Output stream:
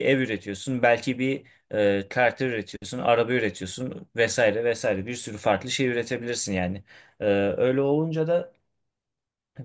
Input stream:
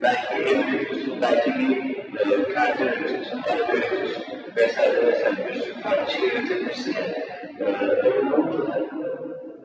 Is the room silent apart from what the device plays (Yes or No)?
Yes